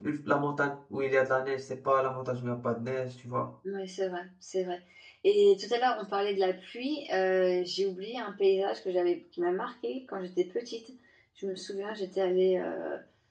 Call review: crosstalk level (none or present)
none